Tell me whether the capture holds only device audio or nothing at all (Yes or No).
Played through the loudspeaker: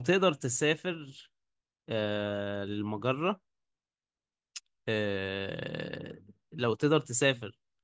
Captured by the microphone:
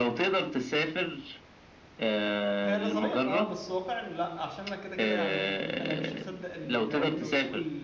No